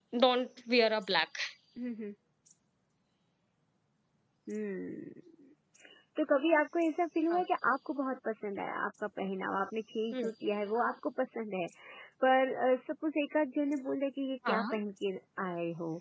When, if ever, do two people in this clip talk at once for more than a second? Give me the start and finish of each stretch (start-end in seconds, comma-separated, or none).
none